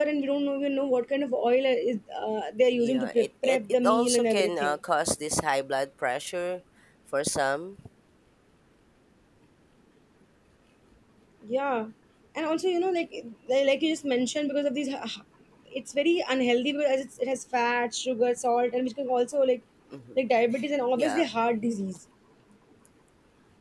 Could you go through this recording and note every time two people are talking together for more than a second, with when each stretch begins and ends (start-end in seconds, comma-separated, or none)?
2.8-4.8